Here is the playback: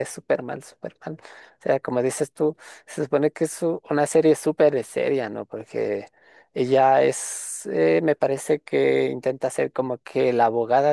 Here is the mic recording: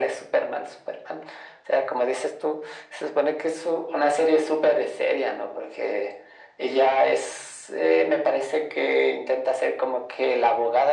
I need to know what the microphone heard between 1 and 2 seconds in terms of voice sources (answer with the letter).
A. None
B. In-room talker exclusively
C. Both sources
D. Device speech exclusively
D